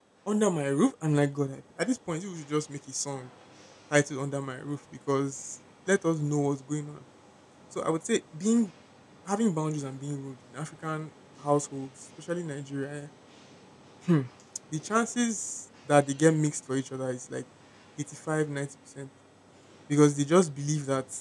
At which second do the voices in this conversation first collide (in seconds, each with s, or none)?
none